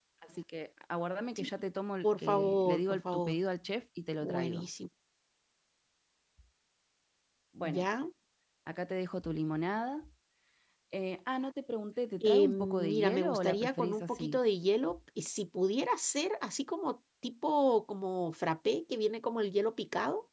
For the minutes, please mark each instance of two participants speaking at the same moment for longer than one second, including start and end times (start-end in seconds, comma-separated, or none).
2.0-3.4, 12.2-14.4